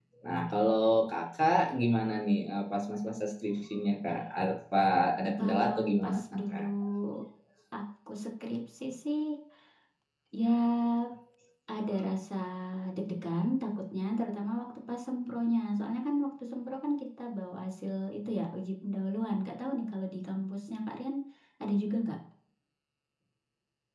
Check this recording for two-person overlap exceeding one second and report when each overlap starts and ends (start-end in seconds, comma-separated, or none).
5.4-6.6